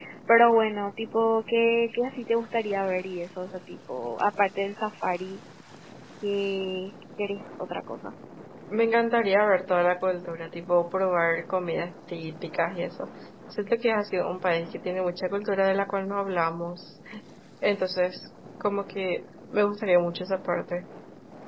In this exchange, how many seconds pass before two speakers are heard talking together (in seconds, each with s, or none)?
none